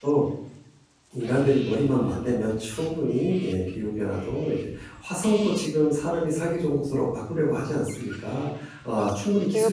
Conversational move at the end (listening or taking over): taking over